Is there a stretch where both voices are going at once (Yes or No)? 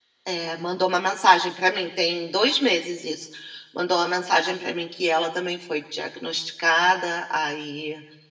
No